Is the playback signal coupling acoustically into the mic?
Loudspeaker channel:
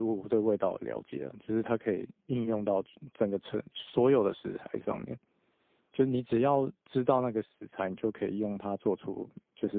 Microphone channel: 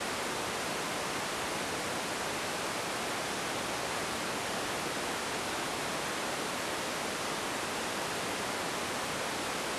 No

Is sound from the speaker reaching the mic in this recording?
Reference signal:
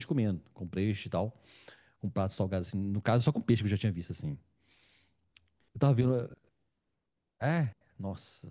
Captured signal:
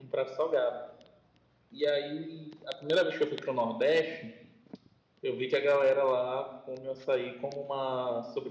No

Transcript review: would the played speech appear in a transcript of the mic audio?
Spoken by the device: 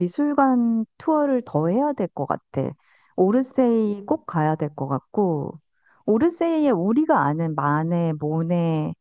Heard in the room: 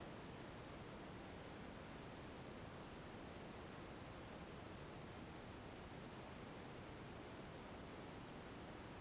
No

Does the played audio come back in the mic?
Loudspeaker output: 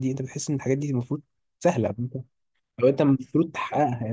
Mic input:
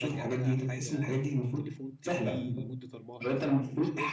Yes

